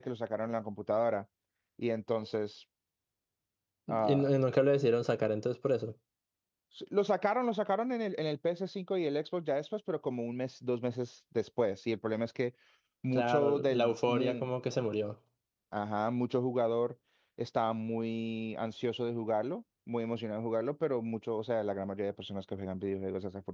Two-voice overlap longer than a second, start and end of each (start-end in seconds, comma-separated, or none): 13.1-14.5